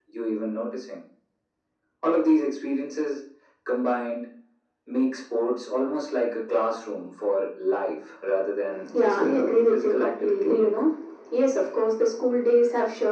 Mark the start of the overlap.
8.9 s

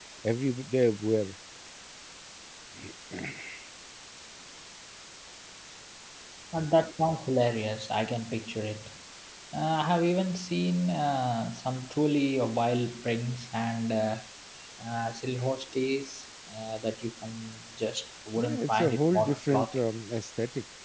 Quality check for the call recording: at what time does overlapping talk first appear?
18.4 s

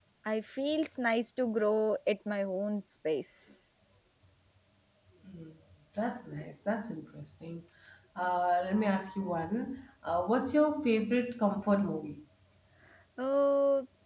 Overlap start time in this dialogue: none

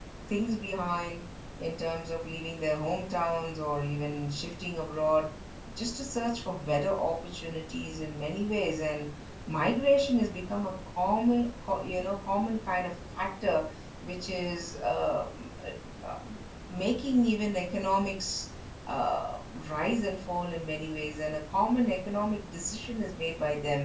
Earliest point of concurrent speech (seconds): none

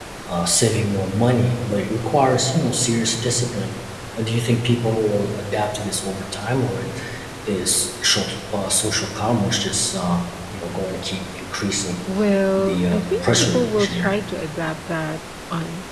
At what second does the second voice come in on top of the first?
12.6 s

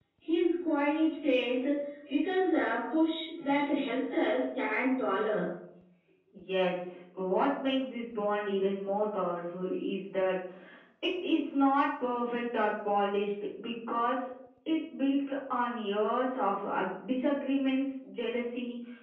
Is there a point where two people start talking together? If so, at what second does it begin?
none

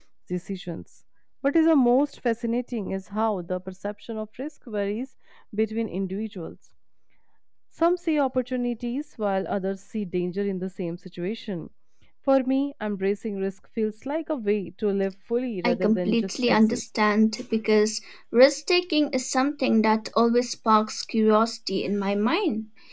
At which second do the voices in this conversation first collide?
15.6 s

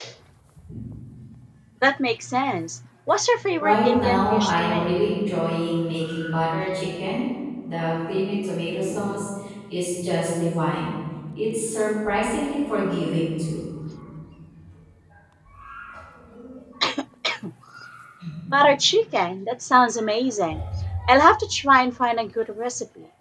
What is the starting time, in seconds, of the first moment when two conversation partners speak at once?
3.6 s

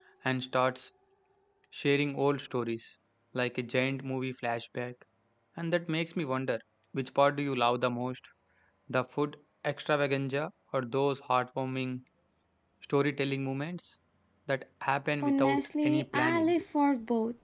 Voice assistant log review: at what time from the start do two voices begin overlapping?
15.2 s

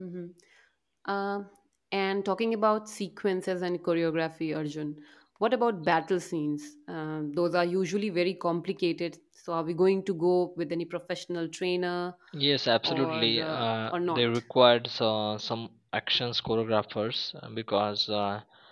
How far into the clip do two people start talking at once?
12.8 s

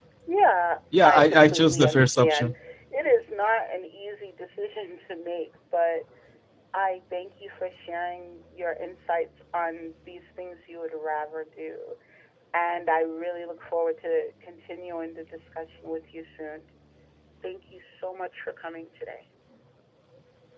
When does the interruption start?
1.0 s

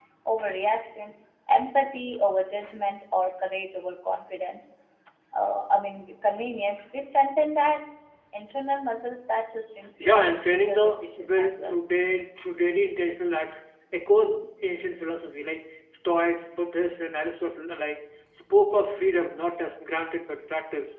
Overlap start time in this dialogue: 10.0 s

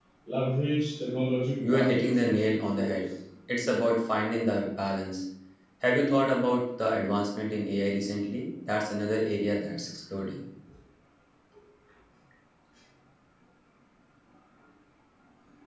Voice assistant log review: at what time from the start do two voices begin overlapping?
1.6 s

